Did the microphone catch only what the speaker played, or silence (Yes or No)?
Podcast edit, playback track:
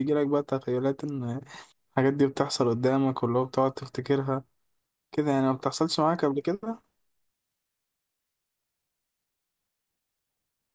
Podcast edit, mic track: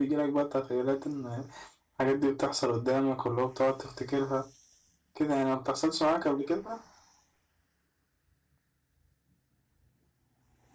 Yes